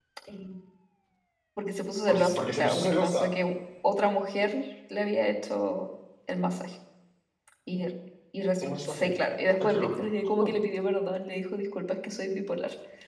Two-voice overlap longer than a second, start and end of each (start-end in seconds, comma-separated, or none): 2.1-3.3